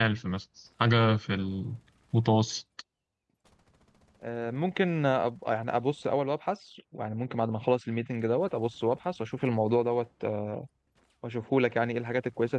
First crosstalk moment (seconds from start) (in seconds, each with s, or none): none